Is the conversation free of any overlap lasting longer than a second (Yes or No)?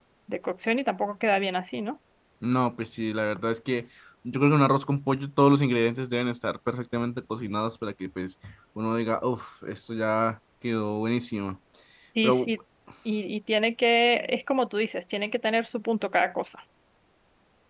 Yes